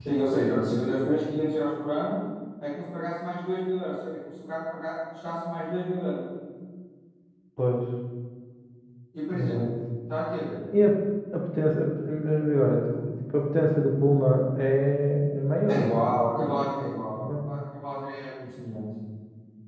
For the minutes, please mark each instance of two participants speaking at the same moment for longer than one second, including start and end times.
none

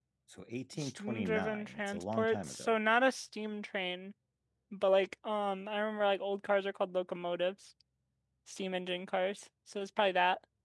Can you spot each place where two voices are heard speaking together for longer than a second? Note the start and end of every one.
0.8-2.8

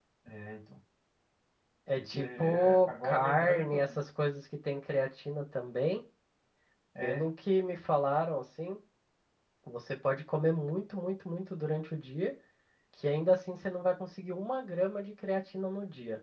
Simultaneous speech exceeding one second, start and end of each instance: 2.0-4.0

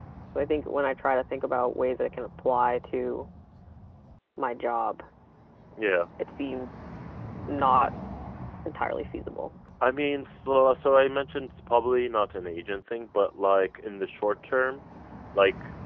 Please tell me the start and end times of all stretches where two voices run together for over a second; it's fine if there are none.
none

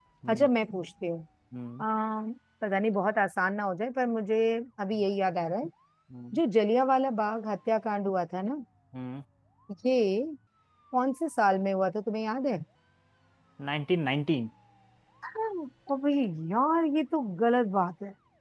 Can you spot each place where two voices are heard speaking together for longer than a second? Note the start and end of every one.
none

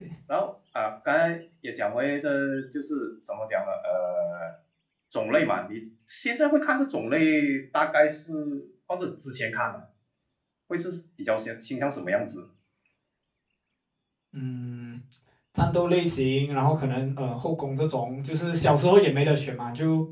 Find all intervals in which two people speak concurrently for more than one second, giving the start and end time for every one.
none

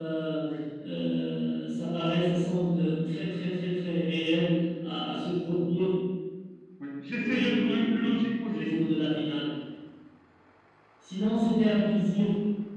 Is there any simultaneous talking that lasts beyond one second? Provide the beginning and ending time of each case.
7.2-8.7

